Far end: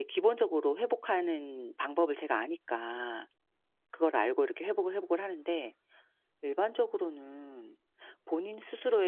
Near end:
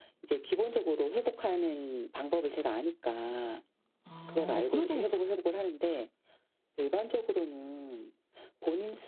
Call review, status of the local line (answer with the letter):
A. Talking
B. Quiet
A